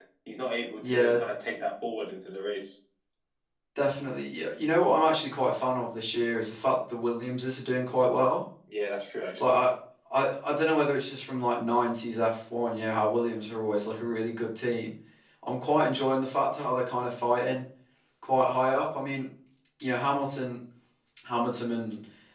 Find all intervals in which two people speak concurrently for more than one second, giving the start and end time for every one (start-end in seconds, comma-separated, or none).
none